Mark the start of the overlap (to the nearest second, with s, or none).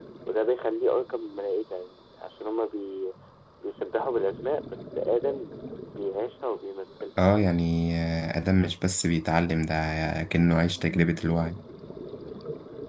none